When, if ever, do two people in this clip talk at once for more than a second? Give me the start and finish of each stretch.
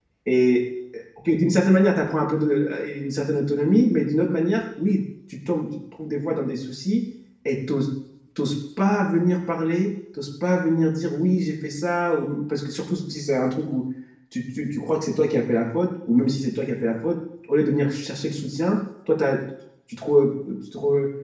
none

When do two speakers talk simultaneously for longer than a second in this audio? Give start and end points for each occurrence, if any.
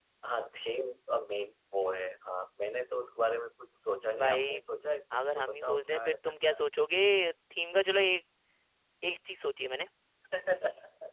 5.2-6.6

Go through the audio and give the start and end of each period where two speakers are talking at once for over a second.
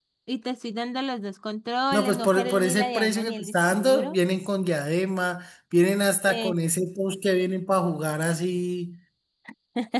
1.9-4.2

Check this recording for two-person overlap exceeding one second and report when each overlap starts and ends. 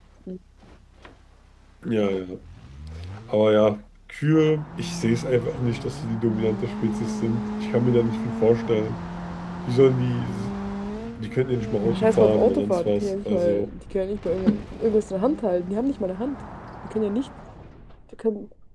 11.8-13.7

